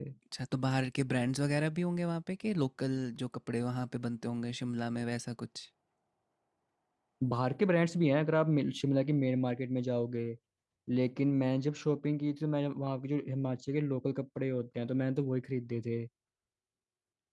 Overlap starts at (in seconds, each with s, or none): none